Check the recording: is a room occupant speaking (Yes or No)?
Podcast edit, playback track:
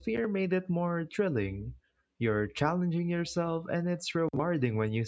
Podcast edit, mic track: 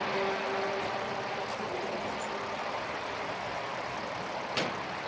No